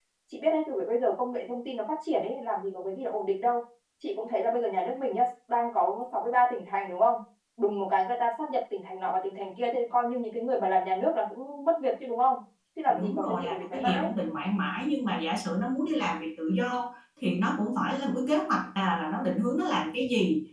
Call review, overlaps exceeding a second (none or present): present